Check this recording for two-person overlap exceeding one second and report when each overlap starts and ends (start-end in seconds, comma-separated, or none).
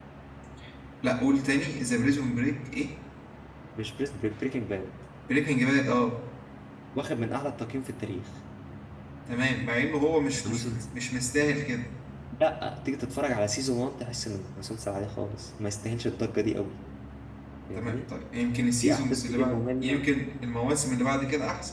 18.8-20.0